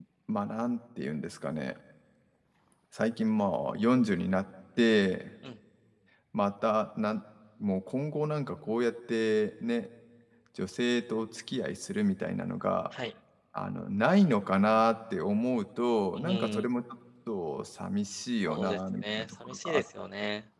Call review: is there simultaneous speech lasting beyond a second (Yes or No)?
Yes